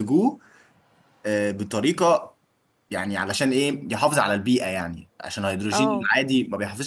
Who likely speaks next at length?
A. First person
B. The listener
A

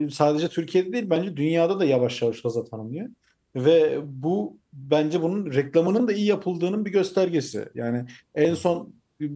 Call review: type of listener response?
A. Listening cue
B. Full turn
A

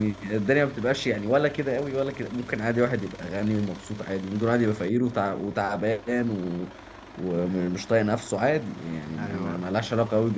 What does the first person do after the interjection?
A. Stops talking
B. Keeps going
B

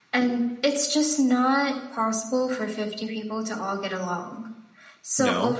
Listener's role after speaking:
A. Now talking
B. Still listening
B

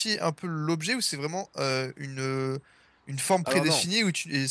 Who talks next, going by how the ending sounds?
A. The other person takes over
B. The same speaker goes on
B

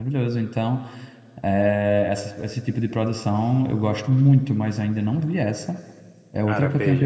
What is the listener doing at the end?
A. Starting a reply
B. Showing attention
A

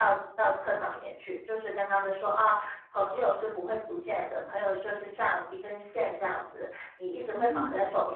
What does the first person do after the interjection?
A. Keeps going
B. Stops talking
A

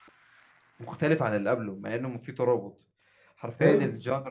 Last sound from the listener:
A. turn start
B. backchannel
B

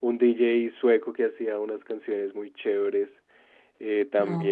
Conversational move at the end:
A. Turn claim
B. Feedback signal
B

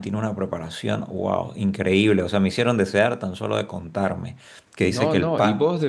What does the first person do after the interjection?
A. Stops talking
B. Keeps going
A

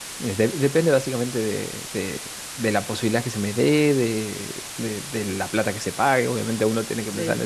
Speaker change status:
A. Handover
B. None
B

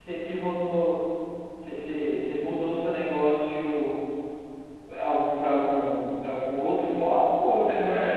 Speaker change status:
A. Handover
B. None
A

